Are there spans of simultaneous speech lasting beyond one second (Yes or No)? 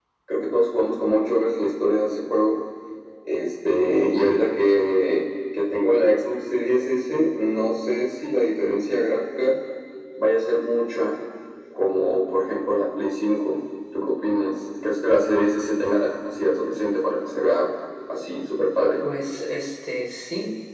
No